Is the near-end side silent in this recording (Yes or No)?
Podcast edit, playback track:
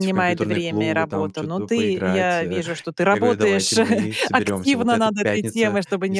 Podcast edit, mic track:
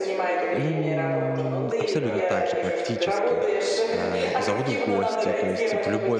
No